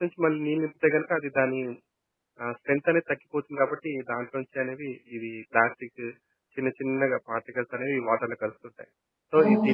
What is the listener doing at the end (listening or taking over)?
taking over